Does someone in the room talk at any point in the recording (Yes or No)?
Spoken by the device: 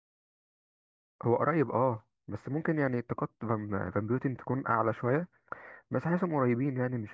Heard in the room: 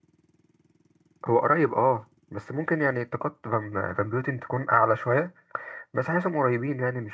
No